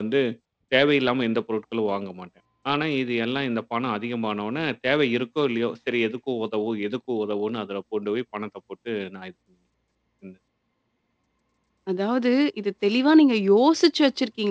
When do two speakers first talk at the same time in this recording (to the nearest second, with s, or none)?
none